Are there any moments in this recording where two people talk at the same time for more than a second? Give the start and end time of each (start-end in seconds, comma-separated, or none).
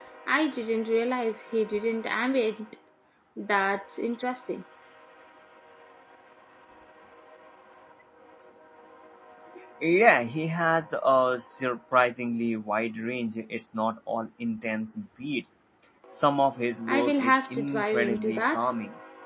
16.9-18.7